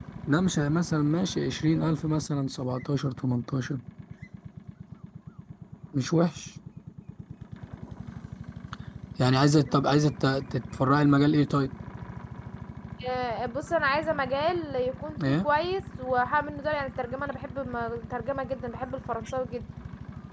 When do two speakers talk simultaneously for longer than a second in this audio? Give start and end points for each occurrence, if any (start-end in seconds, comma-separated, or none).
none